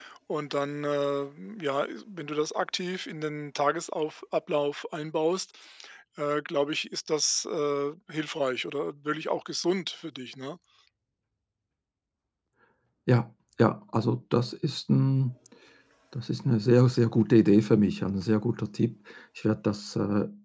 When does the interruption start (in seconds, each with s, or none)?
none